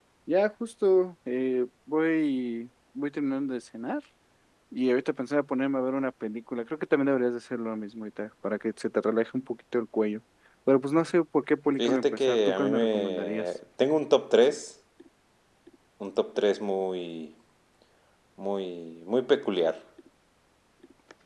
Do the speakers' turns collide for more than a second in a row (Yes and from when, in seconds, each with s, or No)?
Yes, from 11.8 s